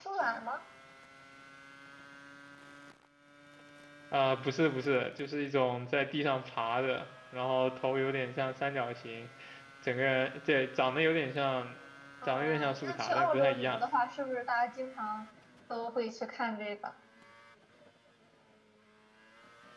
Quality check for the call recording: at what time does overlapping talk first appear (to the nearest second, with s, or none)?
12 s